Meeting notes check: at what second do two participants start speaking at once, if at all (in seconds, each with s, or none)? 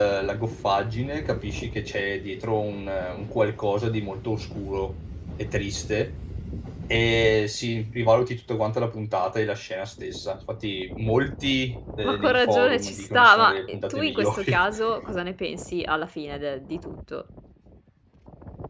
12.0 s